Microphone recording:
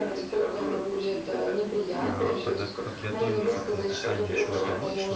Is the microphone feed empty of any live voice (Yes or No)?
No